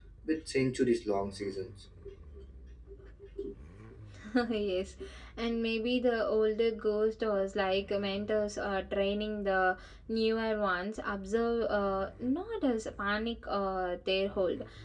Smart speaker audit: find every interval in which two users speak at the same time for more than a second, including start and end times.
none

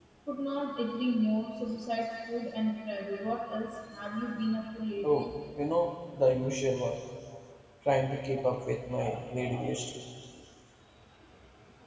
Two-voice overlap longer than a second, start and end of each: none

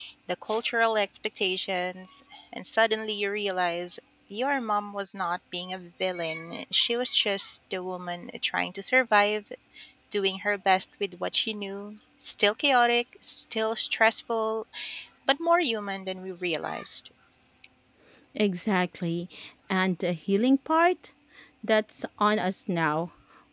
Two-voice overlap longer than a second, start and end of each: none

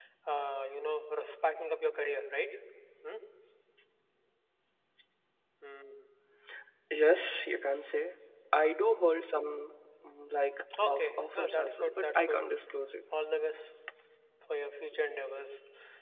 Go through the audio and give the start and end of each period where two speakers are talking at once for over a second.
10.8-12.4

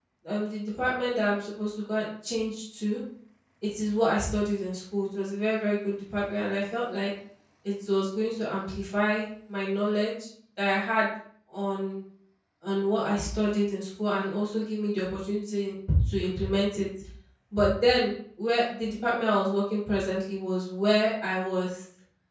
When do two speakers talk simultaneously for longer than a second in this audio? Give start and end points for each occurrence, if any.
none

